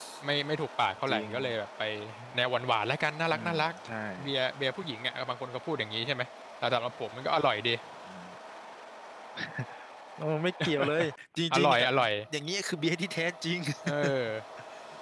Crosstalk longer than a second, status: none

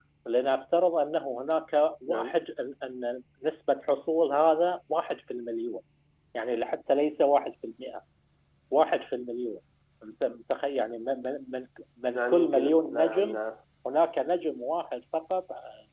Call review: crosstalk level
present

